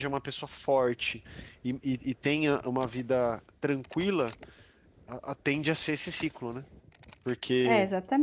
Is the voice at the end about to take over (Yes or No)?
Yes